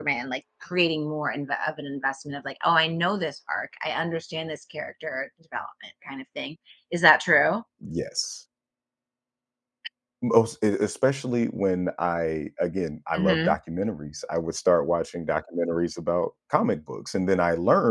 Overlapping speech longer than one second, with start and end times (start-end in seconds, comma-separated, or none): none